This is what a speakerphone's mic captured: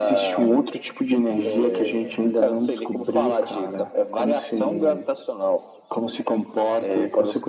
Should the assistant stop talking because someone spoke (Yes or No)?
No